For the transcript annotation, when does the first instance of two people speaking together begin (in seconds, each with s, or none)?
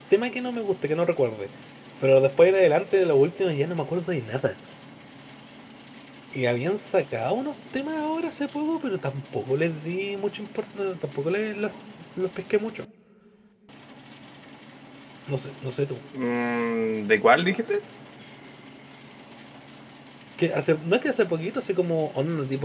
none